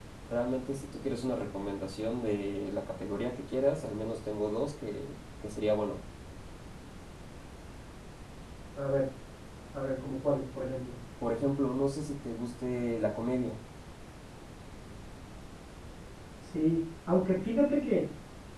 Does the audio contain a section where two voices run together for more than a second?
No

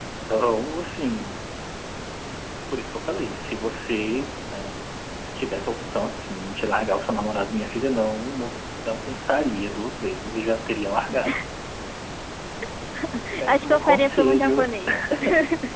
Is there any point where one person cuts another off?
Yes, from 13.4 s

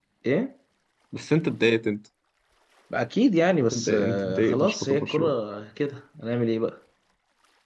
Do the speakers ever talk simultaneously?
Yes, from 3.6 s

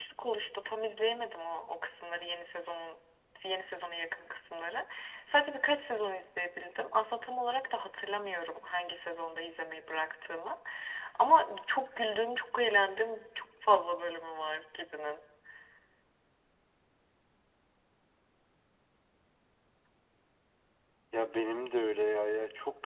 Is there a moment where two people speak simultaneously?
No

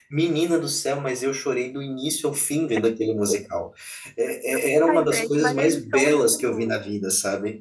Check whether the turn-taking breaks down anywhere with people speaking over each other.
Yes, from 4.9 s

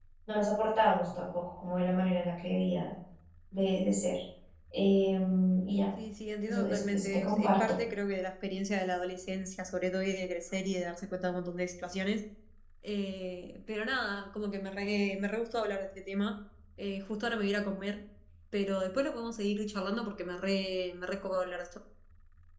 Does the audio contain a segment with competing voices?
Yes, from 6.5 s

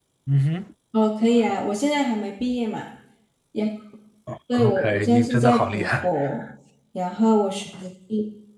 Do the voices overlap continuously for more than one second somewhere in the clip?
Yes, from 4.5 s

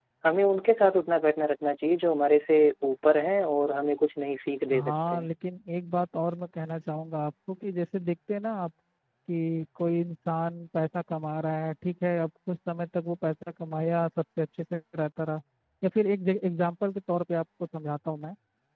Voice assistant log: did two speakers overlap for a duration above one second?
No

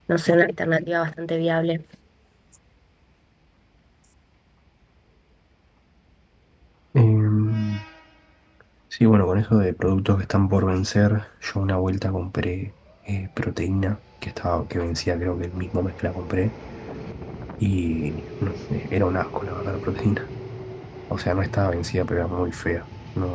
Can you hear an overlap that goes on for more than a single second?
No

